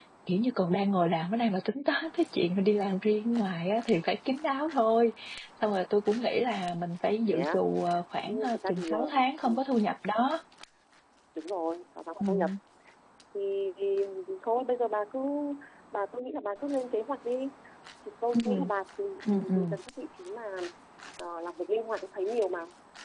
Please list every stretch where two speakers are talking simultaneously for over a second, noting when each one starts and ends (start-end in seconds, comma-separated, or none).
8.2-9.6